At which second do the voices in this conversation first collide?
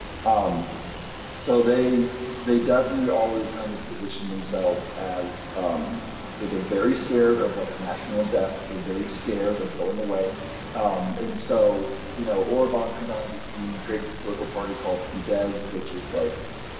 none

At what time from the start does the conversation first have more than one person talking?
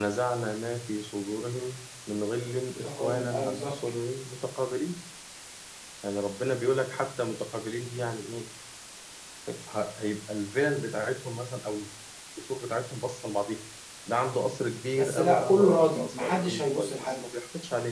2.8 s

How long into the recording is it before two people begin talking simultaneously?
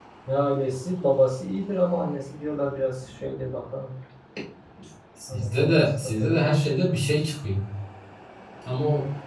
5.3 s

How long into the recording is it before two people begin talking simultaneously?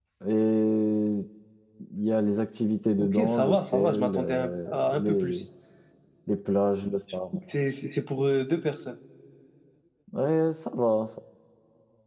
3.0 s

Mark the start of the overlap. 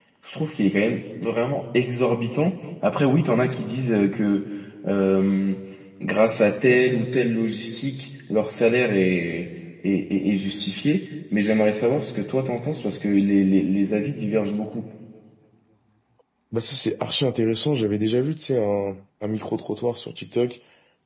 none

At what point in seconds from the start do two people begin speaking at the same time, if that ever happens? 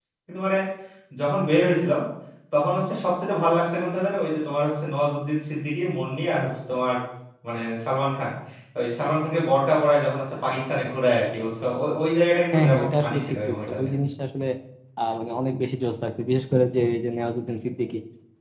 12.5 s

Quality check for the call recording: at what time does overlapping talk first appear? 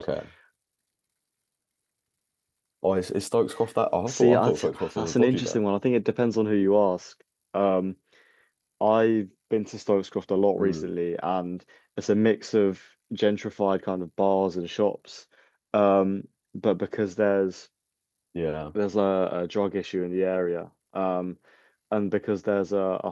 4.1 s

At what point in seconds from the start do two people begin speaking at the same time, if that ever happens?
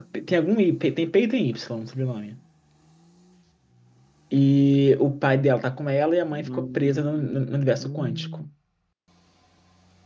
6.3 s

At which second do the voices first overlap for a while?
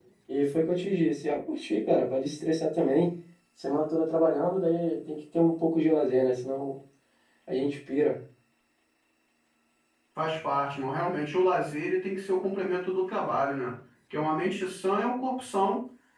none

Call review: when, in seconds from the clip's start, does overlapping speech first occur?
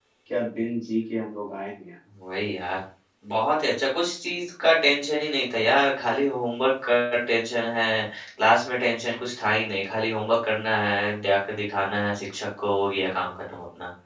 none

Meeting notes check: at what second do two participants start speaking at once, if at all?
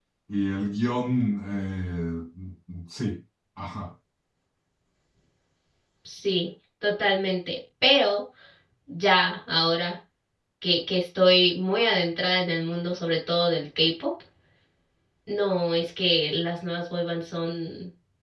none

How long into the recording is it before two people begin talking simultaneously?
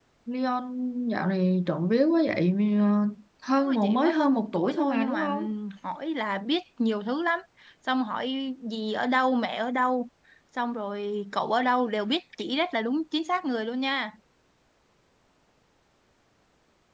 3.6 s

